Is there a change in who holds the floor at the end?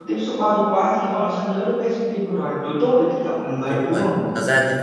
Yes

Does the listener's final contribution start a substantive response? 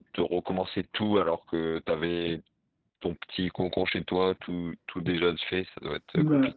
Yes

